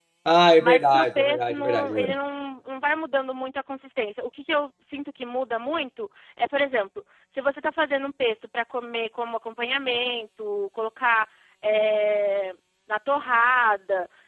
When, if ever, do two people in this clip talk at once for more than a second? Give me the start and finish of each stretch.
0.6-2.1

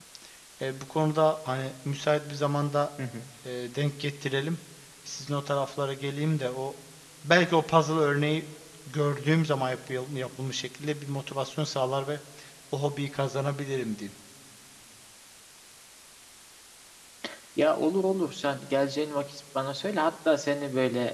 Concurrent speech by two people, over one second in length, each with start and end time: none

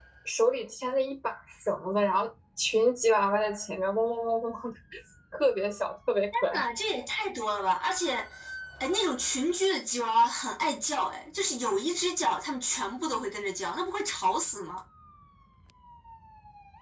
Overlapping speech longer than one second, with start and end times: none

